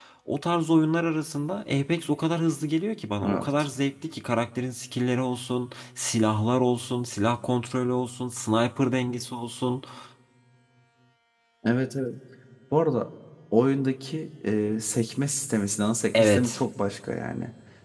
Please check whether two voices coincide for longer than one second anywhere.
No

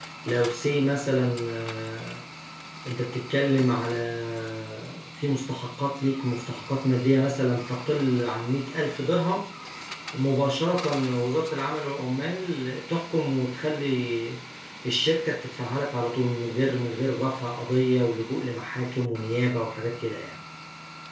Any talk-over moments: No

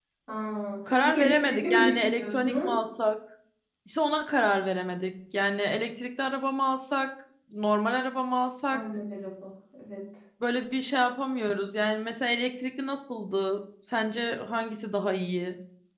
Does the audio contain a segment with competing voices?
Yes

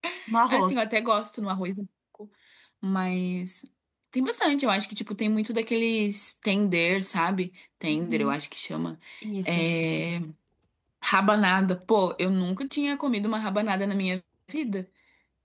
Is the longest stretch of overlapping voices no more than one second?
Yes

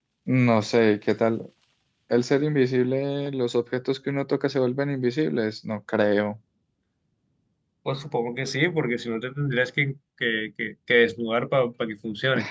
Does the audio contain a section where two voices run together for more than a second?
No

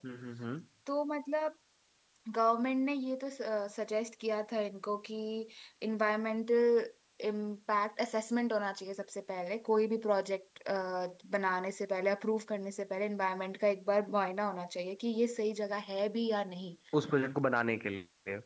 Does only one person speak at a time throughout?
Yes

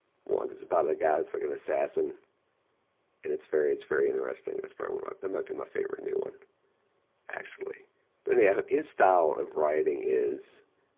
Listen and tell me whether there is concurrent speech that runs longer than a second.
No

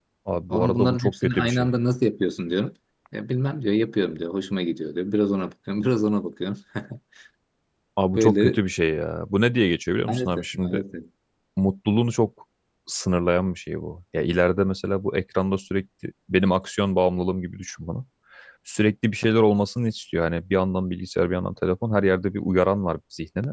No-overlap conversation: No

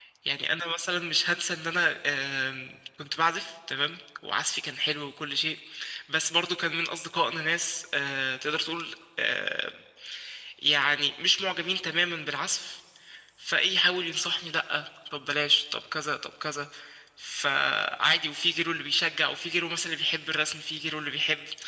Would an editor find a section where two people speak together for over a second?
No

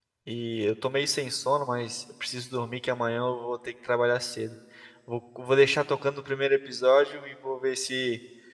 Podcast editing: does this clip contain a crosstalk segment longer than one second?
No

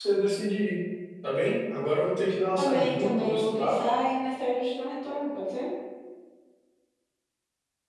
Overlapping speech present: Yes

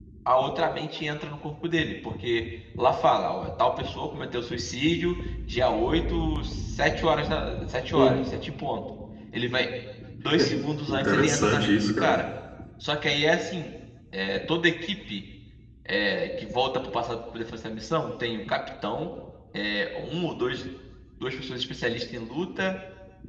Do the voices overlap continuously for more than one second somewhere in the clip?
Yes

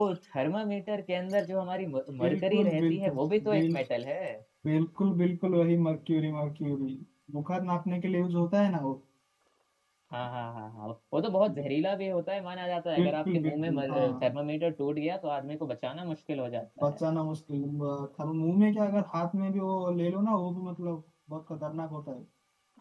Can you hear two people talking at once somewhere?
Yes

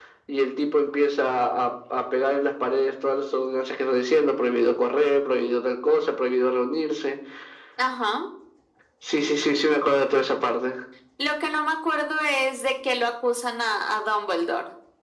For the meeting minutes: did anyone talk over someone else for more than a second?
No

